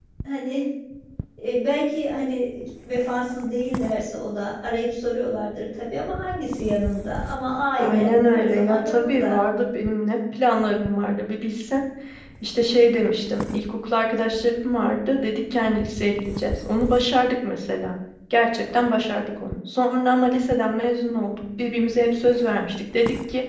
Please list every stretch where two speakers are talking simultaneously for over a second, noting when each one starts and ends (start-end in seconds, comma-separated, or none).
7.8-9.4